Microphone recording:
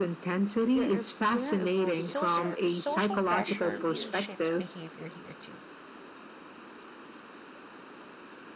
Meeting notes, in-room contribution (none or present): present